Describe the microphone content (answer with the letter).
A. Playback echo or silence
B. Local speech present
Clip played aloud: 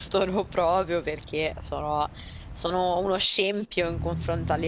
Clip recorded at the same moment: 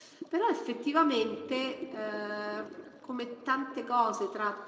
B